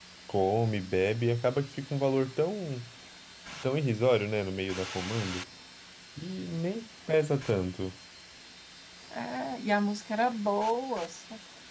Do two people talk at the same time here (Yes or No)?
No